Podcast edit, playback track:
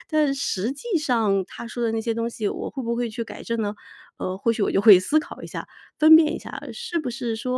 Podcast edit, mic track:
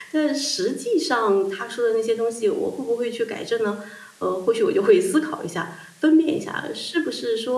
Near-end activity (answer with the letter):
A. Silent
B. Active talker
A